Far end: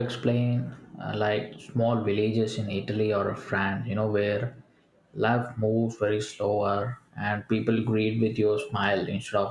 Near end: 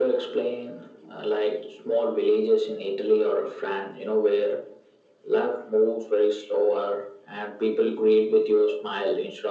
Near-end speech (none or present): none